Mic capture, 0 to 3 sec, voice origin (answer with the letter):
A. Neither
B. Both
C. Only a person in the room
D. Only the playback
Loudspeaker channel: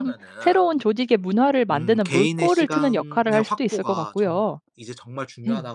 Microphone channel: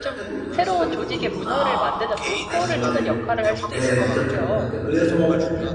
B